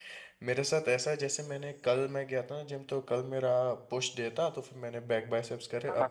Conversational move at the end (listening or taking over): listening